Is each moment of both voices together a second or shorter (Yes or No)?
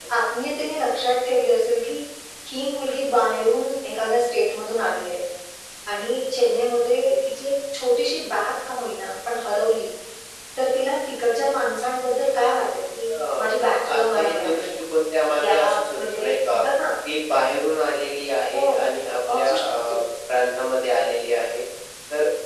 No